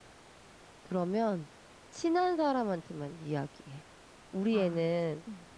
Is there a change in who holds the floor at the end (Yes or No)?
No